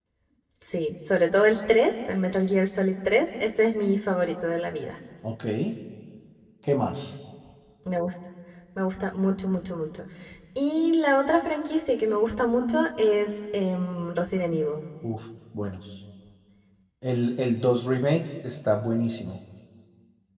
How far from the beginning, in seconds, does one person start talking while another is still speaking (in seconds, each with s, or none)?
none